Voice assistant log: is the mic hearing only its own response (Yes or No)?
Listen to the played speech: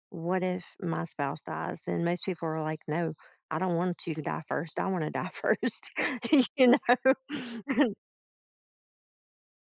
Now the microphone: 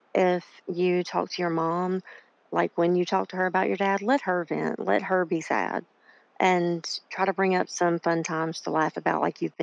No